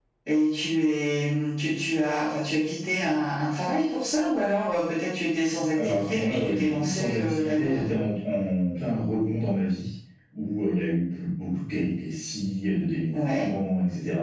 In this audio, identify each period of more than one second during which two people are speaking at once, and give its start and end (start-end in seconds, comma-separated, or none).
5.8-7.8